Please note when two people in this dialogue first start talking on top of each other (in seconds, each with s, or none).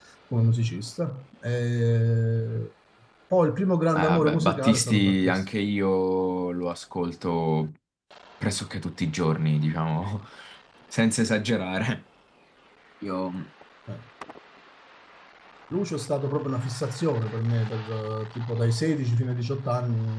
3.9 s